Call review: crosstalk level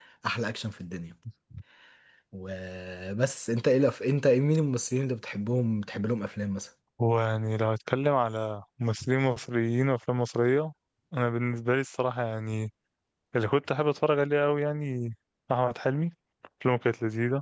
none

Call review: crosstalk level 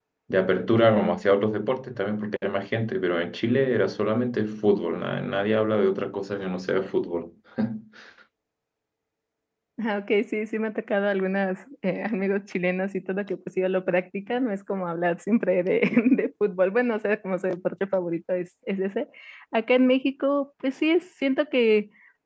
none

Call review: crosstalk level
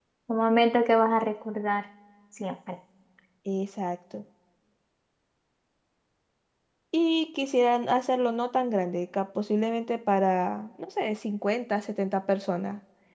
none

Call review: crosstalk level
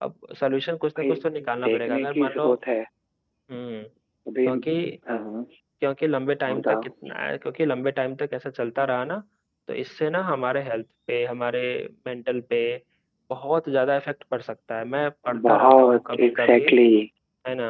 present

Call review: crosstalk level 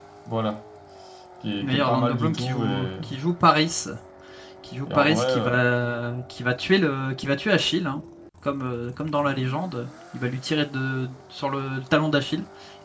present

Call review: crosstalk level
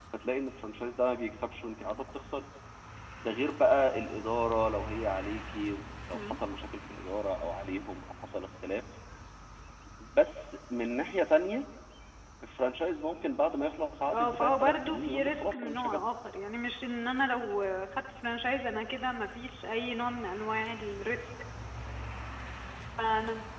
present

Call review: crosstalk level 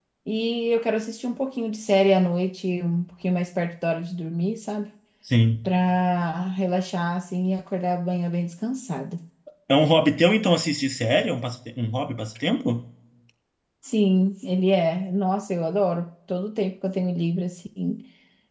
none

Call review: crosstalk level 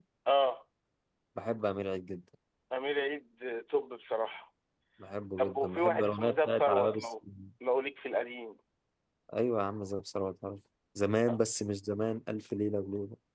present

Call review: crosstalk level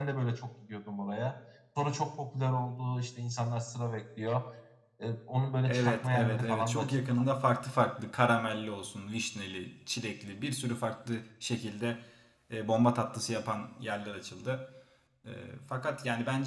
present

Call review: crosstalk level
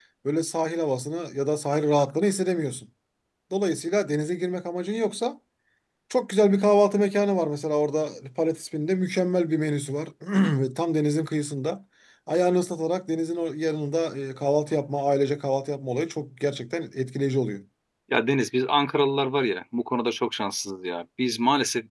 none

